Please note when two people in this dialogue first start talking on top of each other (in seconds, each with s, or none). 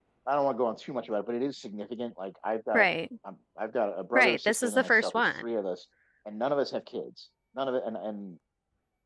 4.1 s